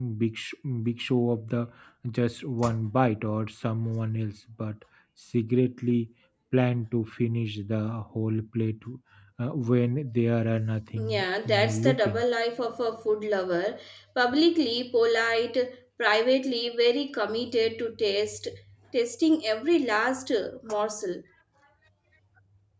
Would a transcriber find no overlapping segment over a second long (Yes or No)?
No